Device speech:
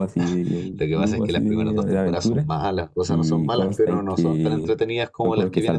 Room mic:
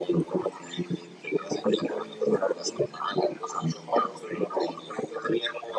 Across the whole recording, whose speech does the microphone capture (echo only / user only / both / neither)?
echo only